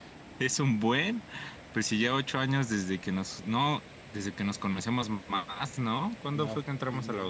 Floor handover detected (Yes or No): Yes